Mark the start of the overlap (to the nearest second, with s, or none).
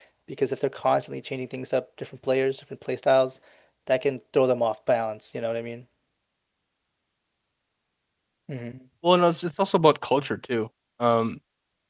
none